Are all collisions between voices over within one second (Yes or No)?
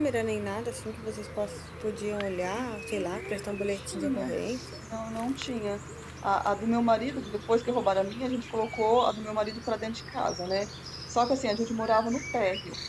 No